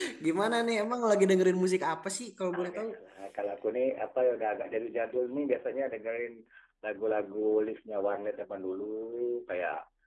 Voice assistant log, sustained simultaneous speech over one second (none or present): none